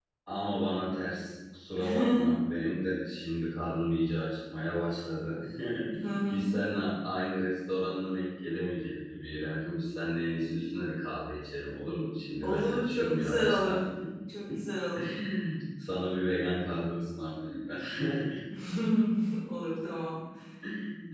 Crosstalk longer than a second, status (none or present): present